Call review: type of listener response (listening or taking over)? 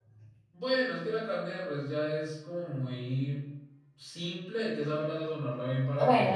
taking over